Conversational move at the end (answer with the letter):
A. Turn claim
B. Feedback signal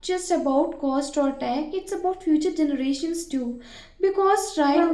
B